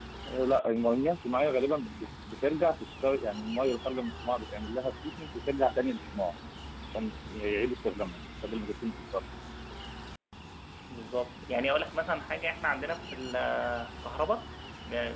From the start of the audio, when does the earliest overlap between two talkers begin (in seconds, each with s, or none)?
none